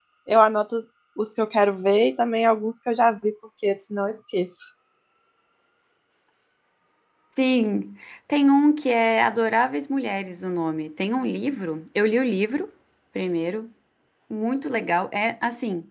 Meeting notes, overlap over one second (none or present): none